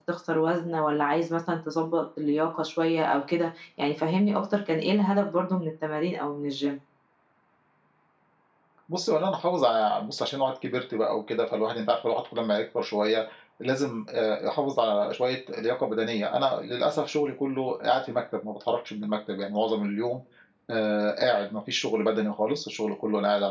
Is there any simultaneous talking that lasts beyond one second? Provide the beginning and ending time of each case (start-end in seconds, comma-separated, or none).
none